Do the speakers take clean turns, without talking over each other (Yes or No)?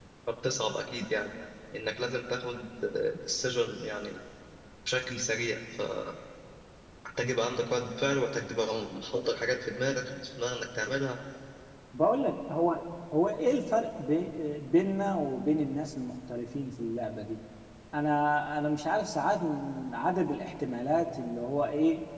Yes